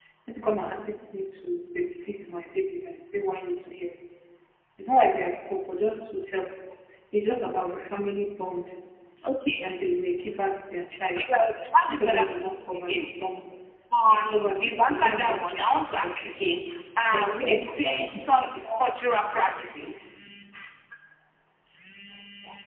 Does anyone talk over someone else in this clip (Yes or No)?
Yes